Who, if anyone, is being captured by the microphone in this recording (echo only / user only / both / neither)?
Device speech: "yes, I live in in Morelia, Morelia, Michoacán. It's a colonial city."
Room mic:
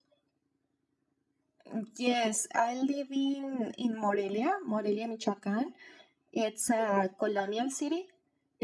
echo only